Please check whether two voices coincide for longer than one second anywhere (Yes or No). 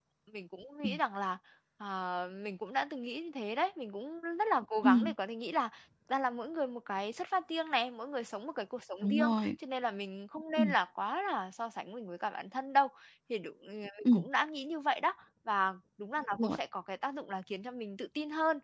No